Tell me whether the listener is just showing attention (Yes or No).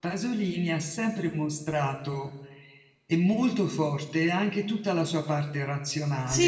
No